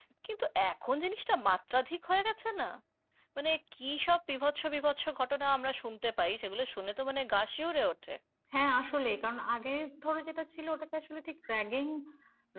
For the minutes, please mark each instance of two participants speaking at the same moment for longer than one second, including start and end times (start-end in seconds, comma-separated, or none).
none